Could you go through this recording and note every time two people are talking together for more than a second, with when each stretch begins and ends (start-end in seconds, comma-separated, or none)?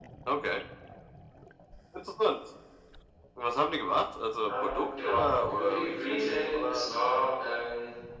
4.5-6.9